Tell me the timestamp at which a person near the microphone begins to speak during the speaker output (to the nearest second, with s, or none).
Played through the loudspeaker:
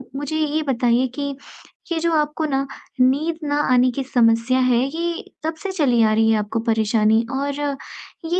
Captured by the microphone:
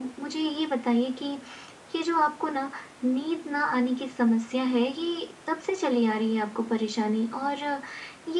none